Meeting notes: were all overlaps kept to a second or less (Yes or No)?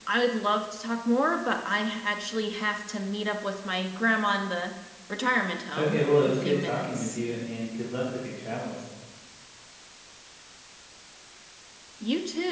No